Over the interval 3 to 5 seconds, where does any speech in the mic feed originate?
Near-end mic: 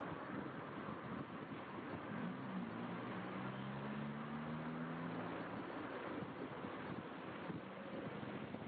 neither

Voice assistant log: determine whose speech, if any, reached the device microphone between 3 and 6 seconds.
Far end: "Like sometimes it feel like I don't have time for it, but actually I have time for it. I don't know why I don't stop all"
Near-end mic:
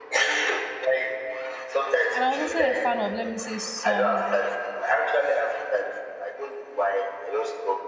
both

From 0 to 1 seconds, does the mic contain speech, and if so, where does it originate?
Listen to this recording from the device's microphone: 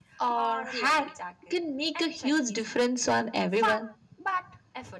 both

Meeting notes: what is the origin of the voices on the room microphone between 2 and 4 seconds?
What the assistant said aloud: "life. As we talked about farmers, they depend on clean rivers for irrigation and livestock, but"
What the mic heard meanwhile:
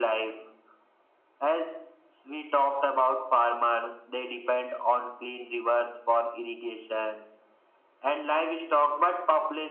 echo only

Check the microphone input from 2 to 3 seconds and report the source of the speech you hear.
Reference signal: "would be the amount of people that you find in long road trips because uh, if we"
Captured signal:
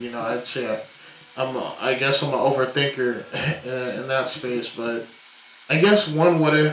user only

